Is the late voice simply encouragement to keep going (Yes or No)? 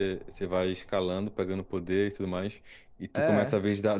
Yes